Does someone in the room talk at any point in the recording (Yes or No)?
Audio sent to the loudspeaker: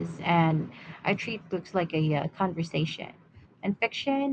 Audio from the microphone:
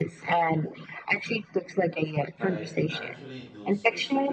Yes